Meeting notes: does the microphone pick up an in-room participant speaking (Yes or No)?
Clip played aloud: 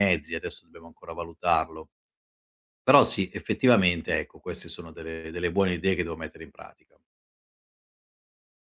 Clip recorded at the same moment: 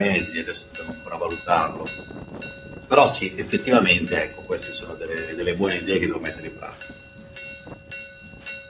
No